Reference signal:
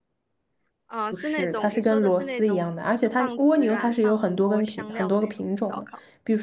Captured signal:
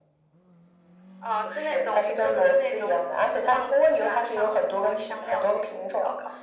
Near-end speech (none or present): none